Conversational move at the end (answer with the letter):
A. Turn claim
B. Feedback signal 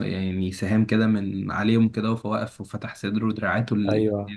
A